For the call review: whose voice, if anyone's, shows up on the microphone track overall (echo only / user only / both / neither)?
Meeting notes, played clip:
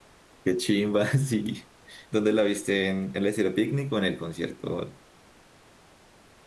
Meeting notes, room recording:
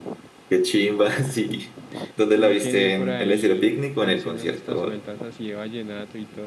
both